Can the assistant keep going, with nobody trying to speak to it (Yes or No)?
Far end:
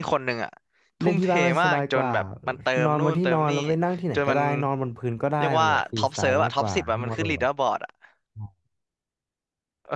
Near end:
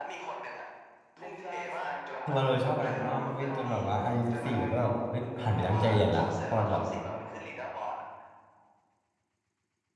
No